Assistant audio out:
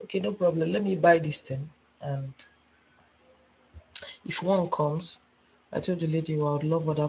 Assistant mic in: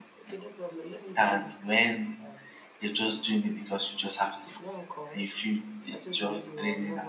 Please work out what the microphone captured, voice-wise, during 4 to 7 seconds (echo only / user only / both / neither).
both